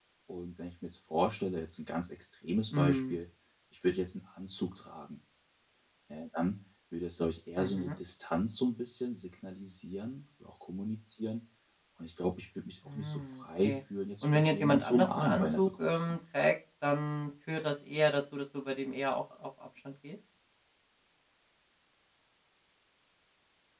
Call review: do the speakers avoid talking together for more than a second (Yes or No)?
No